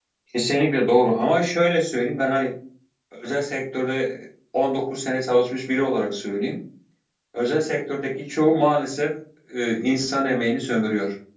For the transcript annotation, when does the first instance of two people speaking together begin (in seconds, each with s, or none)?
none